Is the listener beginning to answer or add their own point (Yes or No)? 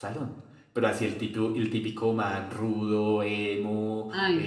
No